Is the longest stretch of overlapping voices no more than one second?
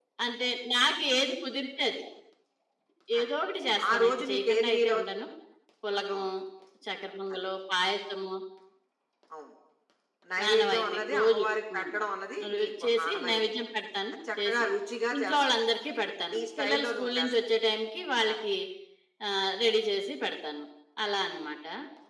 No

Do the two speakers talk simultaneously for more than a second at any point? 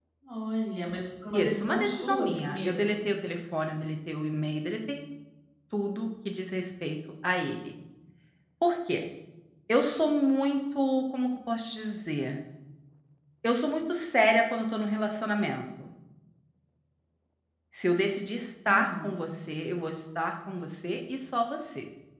Yes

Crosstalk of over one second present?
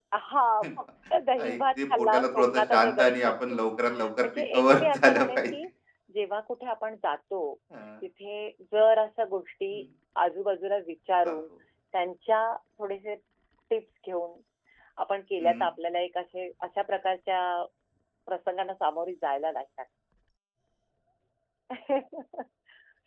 Yes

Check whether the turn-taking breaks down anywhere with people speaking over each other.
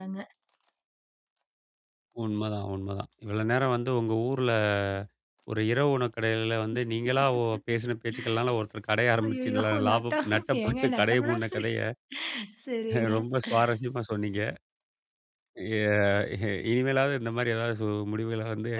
Yes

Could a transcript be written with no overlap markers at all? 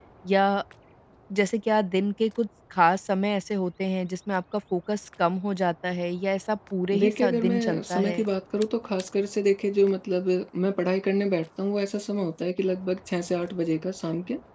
No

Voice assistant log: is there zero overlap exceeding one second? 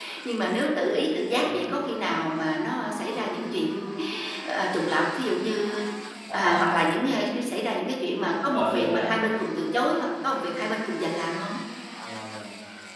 Yes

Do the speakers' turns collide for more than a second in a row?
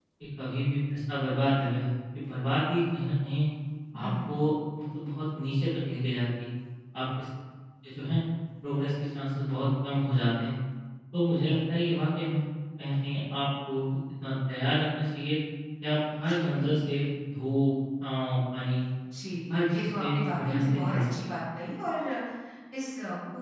Yes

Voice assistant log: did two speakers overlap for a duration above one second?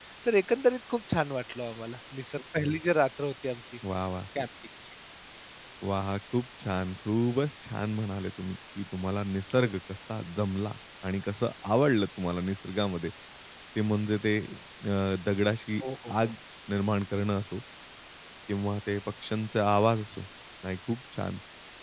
No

